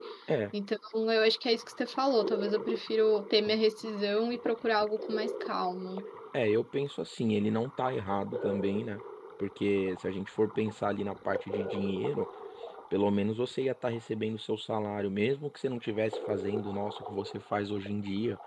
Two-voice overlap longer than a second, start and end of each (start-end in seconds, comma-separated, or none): none